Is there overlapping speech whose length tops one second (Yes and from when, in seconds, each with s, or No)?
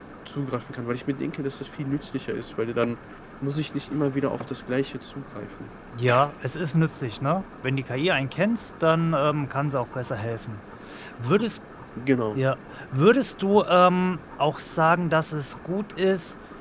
No